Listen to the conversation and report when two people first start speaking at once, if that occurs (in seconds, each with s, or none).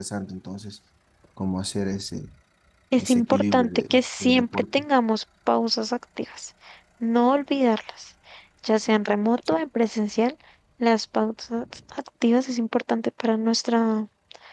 3.0 s